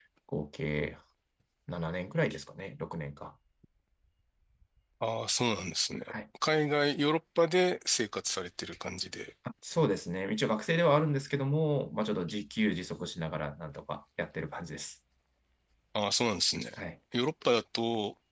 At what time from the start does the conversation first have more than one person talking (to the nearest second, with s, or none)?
none